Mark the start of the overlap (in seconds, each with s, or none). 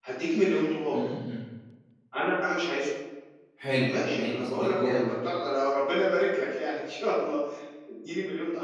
3.8 s